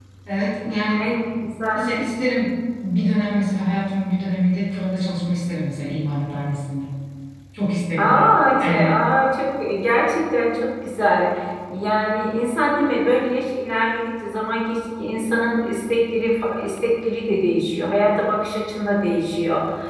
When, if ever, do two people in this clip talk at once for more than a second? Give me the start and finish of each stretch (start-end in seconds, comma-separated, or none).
none